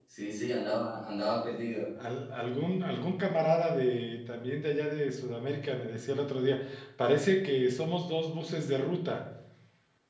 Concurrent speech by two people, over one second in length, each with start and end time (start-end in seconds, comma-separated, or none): none